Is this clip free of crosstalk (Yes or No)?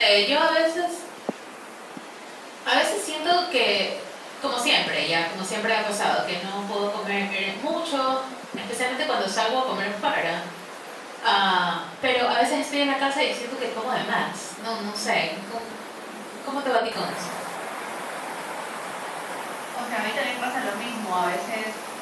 Yes